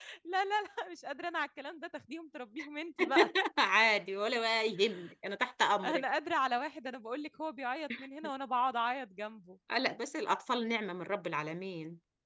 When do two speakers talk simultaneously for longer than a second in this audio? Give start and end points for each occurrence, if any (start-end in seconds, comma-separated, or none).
none